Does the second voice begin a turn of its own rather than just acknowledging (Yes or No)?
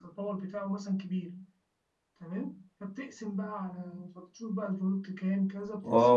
Yes